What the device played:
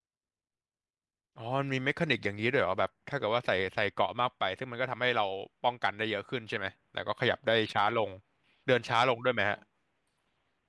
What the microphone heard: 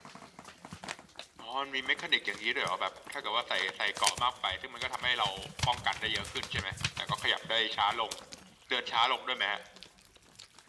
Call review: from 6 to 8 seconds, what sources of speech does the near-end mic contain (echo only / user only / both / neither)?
echo only